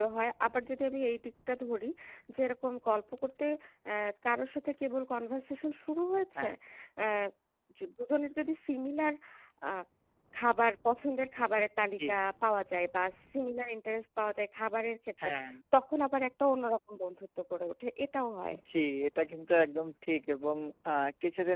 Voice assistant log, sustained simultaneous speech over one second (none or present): none